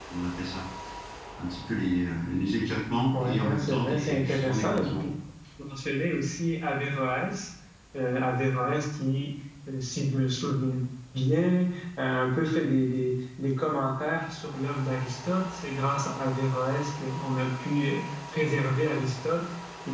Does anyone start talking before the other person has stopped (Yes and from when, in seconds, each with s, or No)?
Yes, from 3.1 s